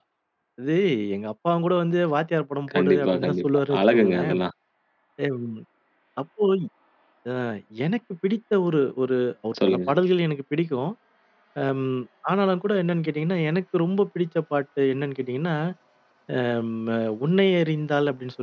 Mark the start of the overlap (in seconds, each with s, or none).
2.7 s